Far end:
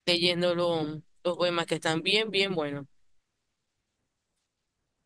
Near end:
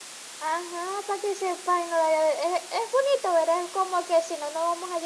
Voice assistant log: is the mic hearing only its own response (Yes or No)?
No